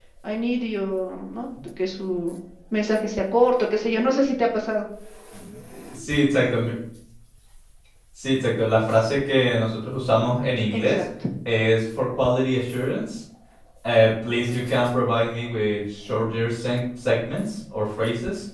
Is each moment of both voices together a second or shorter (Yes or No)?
Yes